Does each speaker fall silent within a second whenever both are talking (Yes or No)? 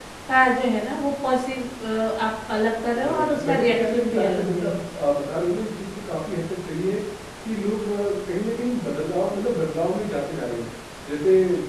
No